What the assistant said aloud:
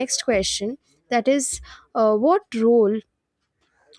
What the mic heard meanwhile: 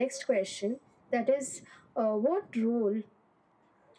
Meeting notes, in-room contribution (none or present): none